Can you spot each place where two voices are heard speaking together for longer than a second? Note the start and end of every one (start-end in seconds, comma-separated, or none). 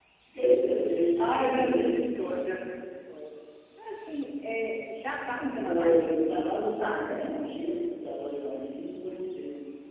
1.2-2.4, 5.6-7.6